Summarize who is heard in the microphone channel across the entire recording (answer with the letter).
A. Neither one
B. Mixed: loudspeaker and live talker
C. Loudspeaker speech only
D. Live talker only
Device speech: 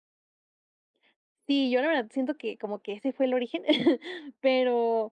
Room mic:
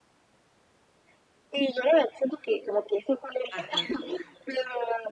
B